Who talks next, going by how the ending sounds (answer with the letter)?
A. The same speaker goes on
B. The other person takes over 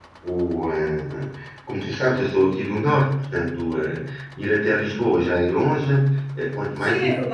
B